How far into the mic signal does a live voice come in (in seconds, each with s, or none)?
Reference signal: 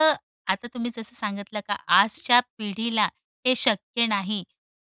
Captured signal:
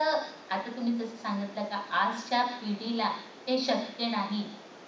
none